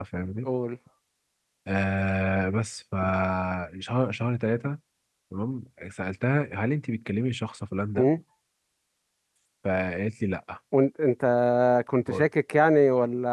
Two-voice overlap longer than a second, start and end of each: none

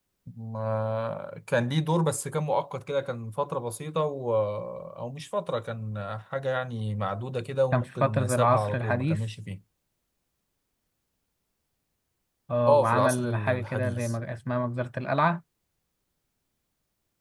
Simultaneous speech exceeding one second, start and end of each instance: 7.7-9.2, 12.7-14.1

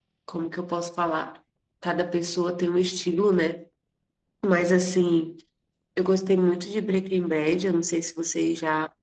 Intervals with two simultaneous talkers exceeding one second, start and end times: none

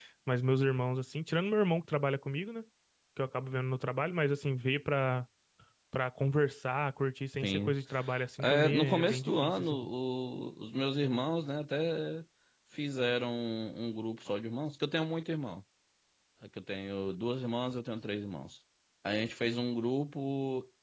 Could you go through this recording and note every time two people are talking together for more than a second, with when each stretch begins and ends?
8.4-9.8

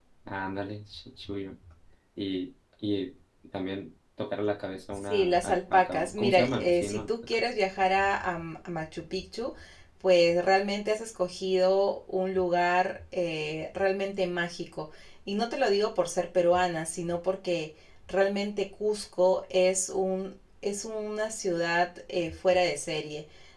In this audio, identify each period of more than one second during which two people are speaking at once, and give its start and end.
4.9-7.4

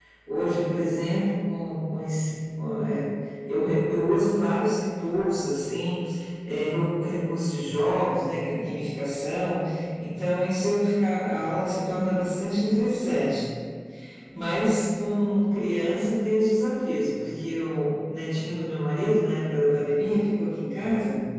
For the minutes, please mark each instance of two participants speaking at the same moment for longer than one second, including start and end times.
none

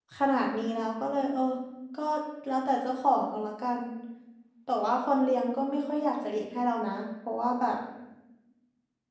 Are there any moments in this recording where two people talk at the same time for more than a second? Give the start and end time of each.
none

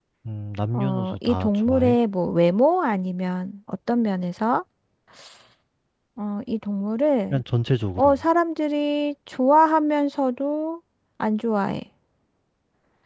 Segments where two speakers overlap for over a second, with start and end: 0.7-2.0

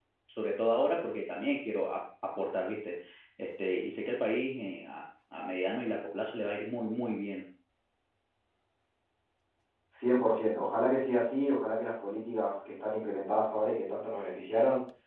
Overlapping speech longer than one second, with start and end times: none

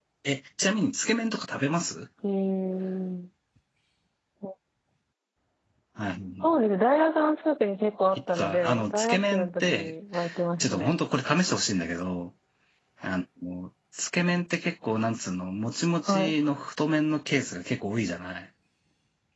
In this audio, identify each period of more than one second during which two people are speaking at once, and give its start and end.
8.4-9.9

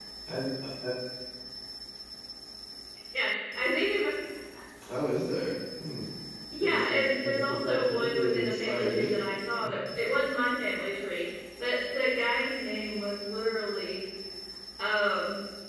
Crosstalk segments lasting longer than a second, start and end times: 6.6-9.0

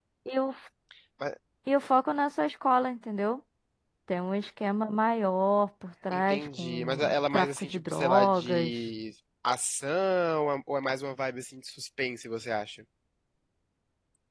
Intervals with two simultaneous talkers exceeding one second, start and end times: 6.1-8.9

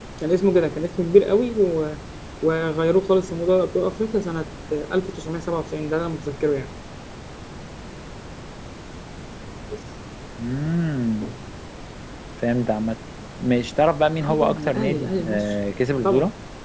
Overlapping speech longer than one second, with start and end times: 14.2-15.5

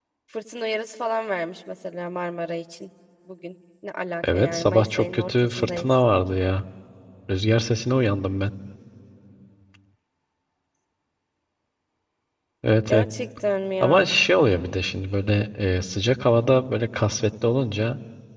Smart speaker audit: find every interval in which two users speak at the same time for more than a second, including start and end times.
4.3-6.0

